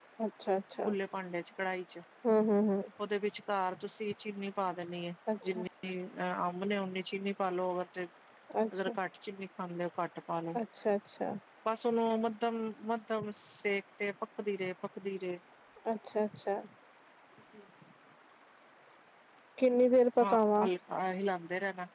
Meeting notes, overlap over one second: none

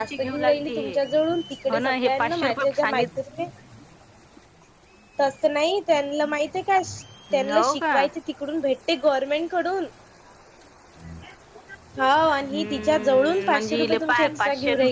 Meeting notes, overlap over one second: present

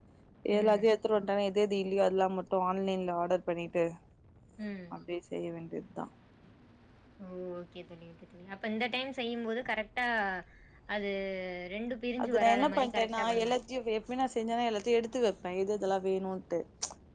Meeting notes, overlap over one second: present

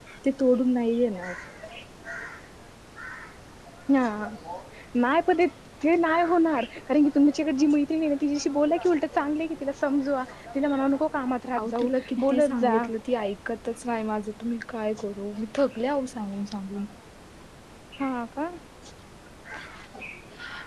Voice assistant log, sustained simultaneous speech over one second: present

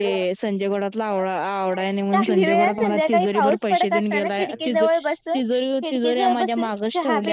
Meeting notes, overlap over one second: present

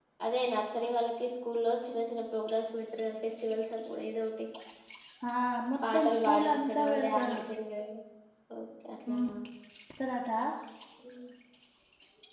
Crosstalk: present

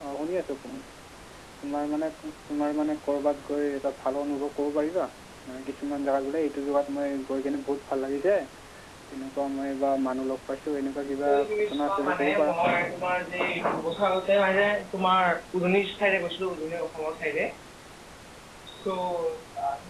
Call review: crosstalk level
present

